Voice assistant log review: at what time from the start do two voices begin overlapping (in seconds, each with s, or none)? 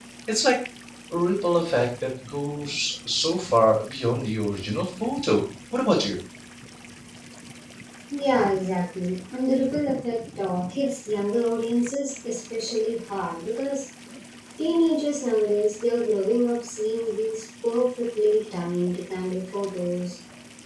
none